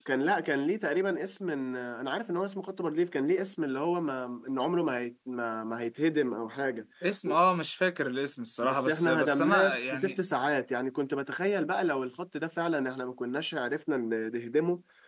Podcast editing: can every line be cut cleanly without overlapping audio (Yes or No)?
No